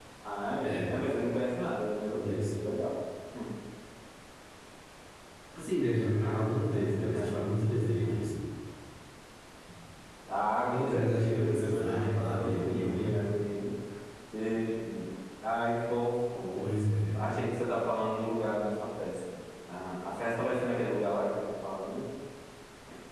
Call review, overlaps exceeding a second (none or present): present